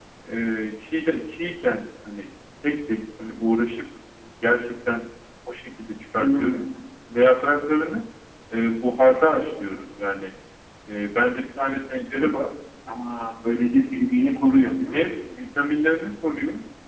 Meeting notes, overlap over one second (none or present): none